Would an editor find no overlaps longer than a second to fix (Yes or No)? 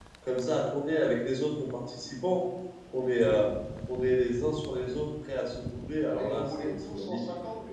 No